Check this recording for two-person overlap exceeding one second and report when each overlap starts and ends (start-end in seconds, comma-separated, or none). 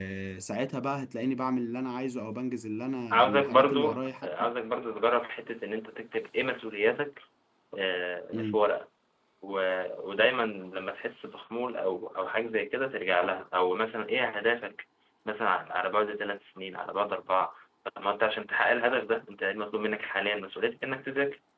3.1-4.5